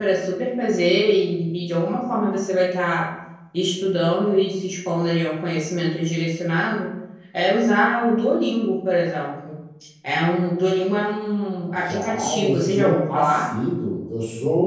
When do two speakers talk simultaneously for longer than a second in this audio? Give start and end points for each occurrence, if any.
11.8-13.5

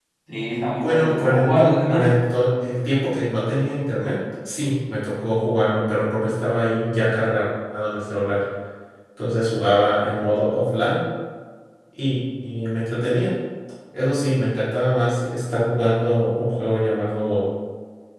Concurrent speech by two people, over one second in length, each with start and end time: 0.8-2.1

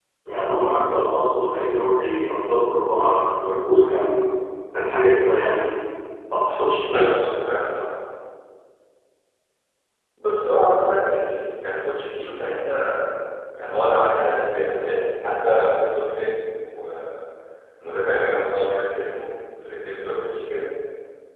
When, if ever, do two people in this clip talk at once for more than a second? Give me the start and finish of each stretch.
none

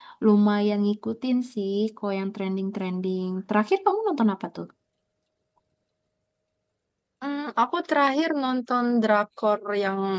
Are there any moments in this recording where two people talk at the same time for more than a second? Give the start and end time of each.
none

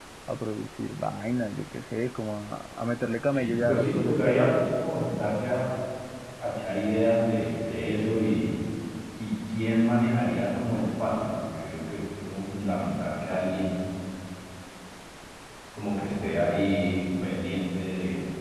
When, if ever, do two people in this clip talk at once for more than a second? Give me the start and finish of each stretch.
3.3-4.9

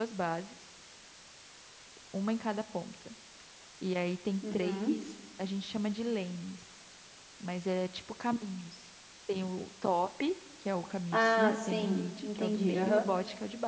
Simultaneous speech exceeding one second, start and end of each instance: 11.1-13.0

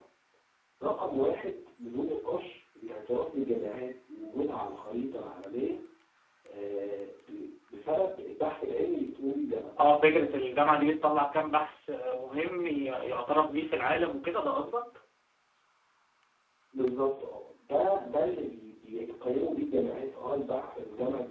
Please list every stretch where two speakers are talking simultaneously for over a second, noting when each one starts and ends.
none

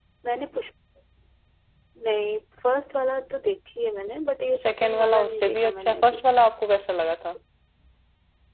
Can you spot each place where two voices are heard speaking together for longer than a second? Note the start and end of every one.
4.6-6.2

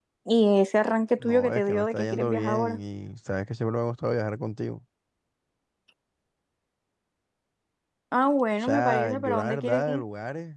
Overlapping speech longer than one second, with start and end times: 1.2-2.8, 8.6-10.0

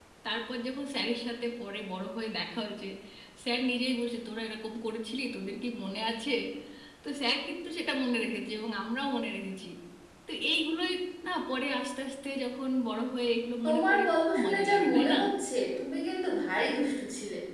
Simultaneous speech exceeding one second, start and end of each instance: 13.6-15.2

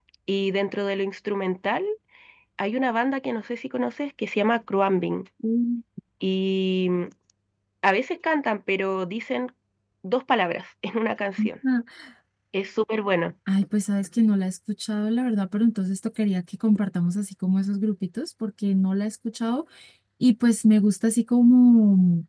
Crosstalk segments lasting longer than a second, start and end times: none

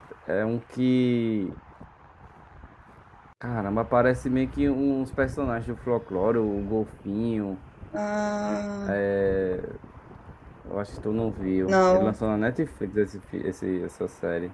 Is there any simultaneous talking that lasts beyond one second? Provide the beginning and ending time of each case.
none

